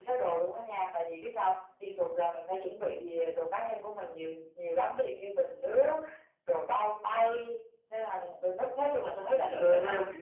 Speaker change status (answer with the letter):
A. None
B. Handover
B